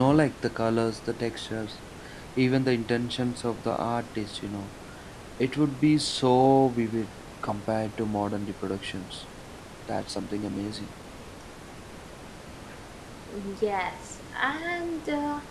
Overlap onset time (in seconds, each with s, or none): none